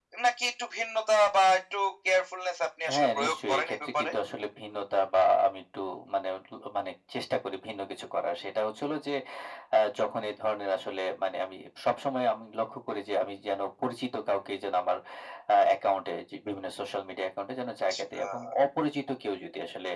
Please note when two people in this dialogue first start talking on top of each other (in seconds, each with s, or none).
2.9 s